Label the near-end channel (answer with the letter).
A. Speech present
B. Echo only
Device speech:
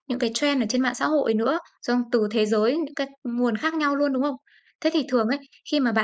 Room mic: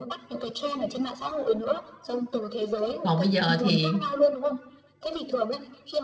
A